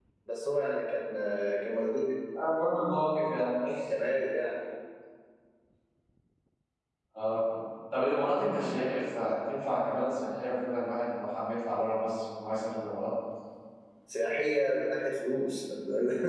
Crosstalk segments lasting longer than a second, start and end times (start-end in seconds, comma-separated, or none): none